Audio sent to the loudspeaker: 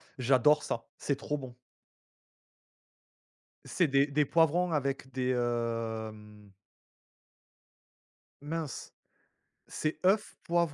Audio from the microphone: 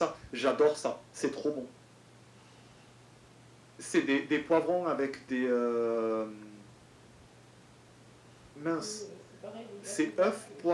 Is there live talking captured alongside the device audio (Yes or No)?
Yes